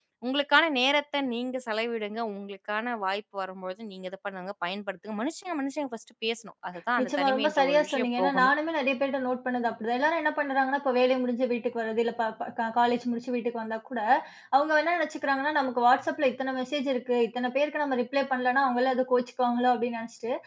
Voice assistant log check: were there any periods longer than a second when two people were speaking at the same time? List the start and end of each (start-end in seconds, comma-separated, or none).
7.0-8.5